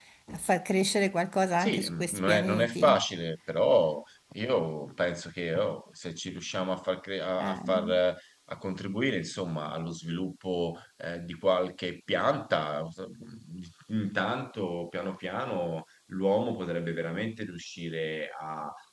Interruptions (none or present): present